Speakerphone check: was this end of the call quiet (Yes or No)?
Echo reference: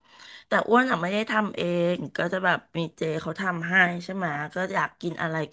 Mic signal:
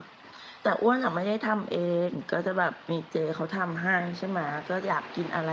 Yes